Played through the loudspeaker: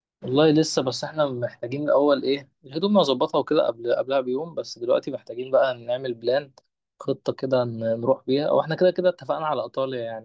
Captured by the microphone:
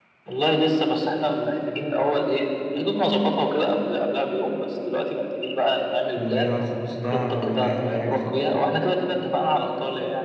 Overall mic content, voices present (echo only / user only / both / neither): both